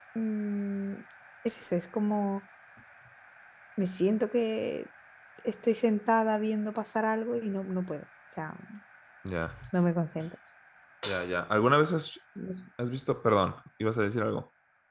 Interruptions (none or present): none